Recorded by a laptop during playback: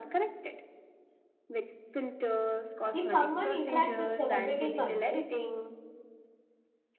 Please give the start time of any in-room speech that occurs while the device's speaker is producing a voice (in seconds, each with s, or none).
2.9 s